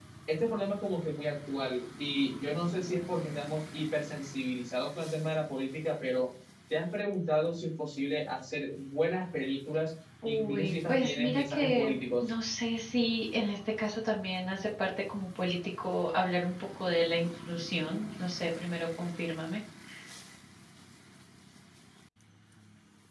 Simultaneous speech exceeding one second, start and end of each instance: 10.2-12.3

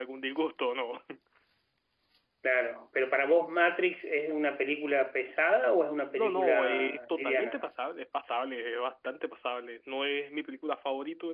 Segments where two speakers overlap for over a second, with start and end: 6.1-7.7

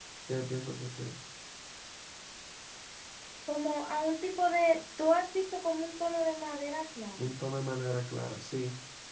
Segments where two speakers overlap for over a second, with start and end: none

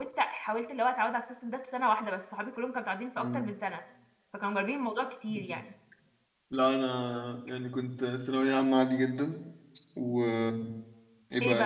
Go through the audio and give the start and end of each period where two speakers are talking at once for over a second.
none

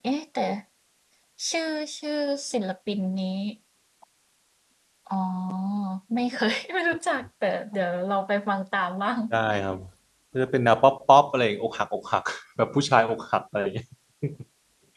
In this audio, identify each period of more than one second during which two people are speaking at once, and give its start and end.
none

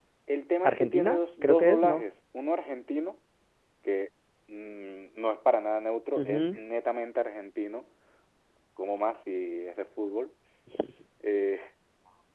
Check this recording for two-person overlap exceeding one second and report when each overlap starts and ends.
0.6-2.0

